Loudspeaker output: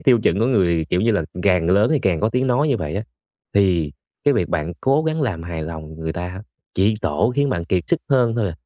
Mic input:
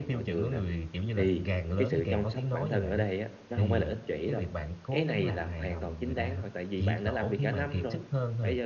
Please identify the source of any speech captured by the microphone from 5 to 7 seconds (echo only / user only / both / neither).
both